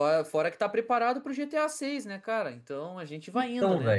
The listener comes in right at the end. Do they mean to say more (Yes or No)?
Yes